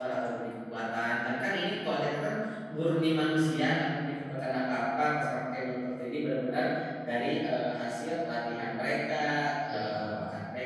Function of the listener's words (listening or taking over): listening